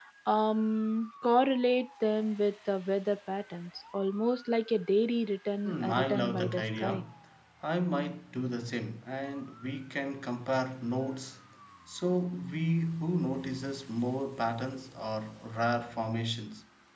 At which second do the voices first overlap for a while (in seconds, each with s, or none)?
5.6 s